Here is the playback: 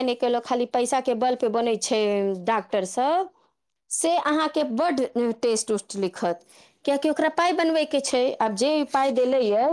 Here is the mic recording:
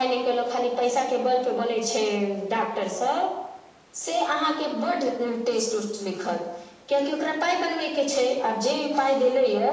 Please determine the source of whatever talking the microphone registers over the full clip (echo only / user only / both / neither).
echo only